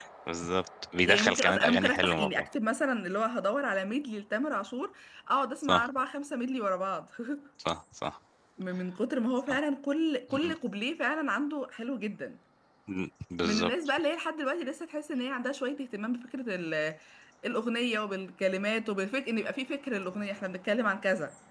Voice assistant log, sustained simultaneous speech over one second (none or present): present